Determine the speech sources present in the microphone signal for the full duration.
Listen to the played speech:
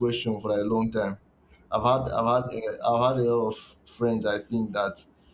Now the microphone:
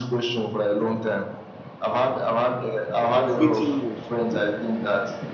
both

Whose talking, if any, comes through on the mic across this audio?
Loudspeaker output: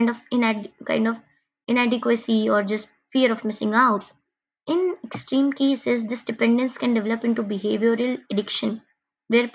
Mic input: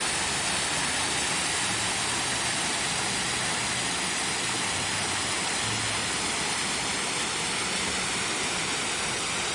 neither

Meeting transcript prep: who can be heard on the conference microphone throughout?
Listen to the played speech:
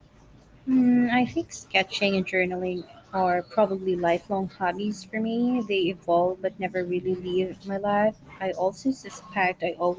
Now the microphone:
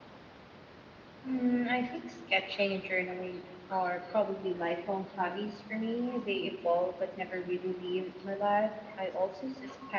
echo only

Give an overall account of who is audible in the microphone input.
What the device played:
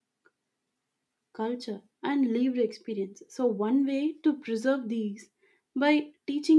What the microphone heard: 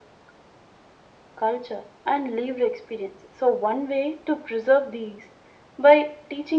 echo only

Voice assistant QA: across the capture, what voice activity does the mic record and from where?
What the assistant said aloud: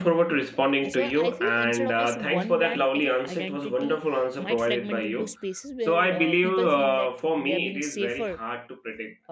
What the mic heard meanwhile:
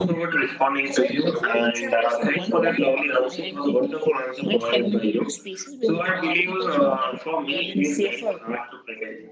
echo only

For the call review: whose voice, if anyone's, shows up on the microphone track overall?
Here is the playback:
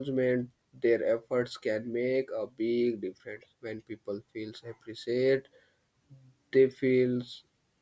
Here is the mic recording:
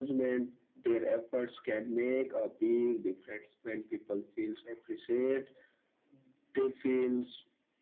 echo only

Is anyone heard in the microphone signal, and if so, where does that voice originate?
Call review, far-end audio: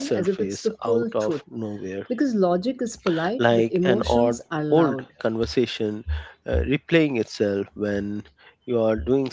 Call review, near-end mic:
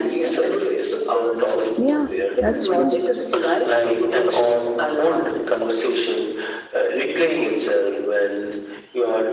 both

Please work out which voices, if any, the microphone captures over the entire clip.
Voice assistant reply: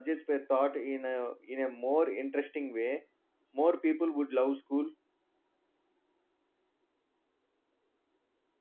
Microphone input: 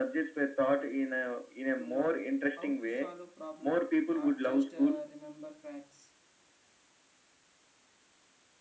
both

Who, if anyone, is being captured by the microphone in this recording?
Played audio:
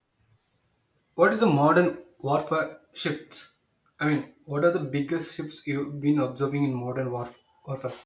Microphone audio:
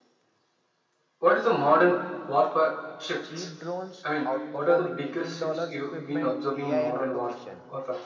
both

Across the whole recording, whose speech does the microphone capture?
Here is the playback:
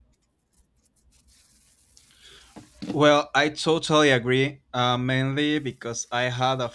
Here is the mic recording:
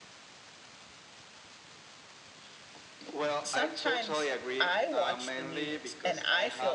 both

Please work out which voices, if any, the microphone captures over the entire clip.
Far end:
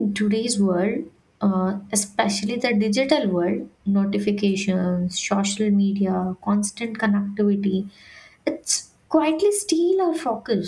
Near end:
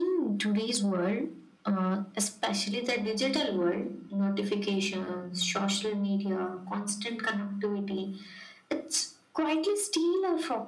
echo only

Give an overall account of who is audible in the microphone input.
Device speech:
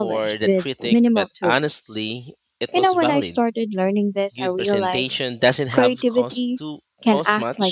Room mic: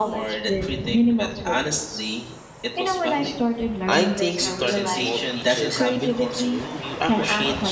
both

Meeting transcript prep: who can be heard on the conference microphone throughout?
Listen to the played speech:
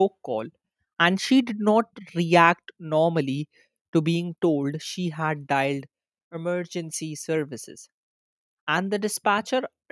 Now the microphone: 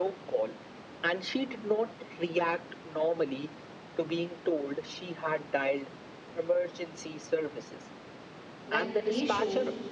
both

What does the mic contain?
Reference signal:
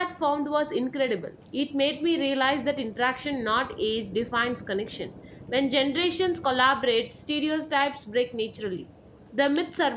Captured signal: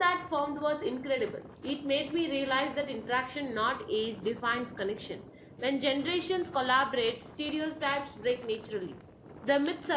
echo only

